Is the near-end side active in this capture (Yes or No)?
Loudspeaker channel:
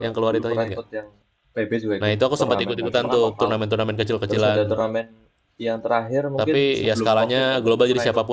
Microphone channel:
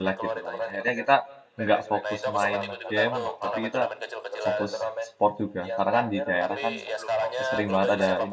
Yes